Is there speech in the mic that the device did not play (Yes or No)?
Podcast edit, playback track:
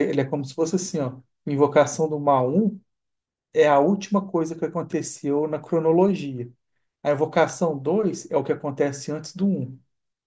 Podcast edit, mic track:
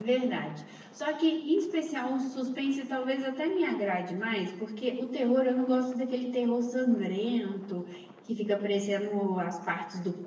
Yes